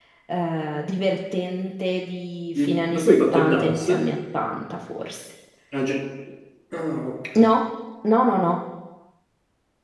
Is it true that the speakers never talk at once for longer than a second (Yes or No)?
No